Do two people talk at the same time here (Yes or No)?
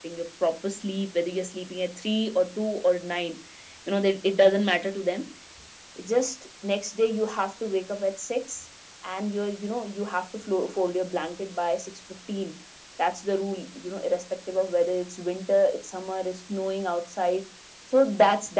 No